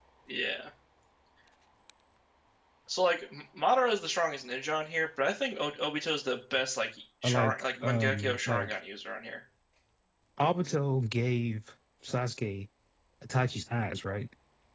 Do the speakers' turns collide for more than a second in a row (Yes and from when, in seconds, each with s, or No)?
Yes, from 7.2 s